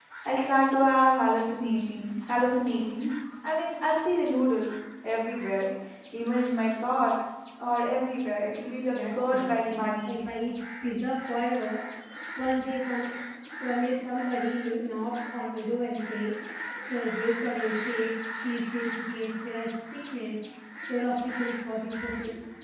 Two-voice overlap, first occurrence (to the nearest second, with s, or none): 9 s